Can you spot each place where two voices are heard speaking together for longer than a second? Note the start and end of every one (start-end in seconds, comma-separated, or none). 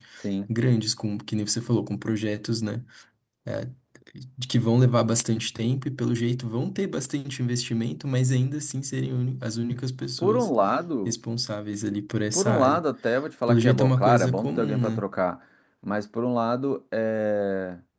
13.5-15.0